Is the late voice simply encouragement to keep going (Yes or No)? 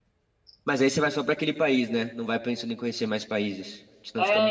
No